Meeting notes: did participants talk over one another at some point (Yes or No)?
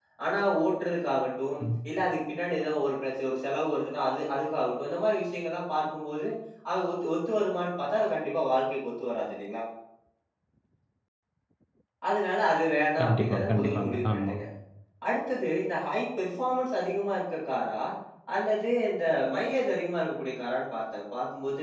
Yes